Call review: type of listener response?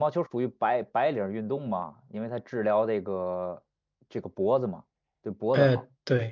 taking over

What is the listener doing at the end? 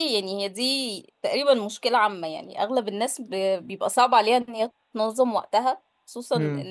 listening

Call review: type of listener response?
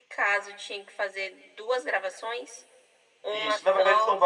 taking over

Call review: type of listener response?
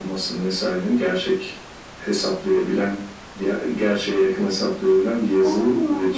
taking over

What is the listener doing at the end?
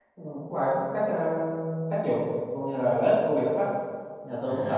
taking over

